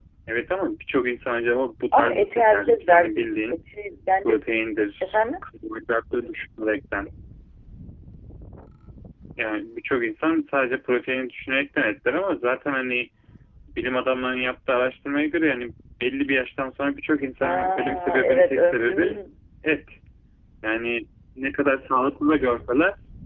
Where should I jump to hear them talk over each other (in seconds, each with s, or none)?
1.9 s